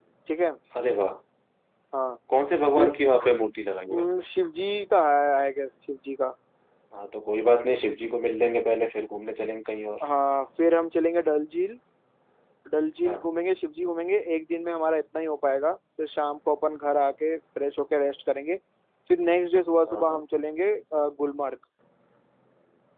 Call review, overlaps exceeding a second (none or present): none